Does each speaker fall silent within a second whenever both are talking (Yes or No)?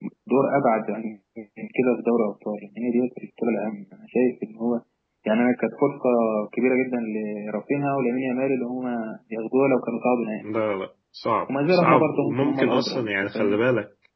No